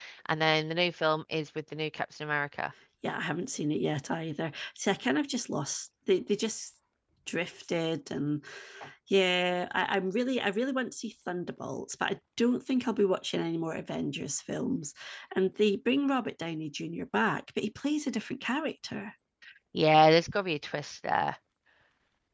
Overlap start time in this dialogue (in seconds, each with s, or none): none